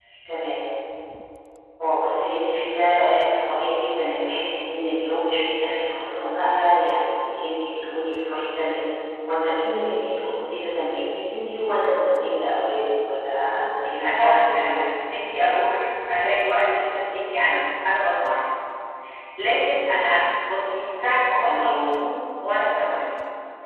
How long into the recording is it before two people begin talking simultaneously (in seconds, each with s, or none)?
13.5 s